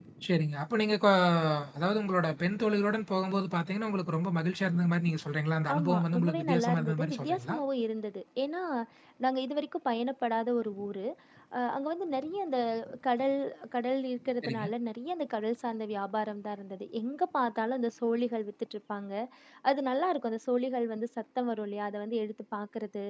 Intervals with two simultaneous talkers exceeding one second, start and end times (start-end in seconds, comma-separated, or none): 5.7-7.6